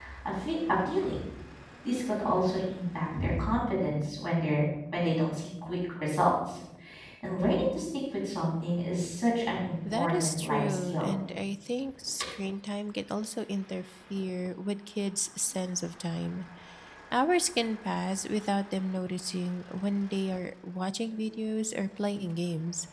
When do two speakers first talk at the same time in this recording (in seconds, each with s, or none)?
9.8 s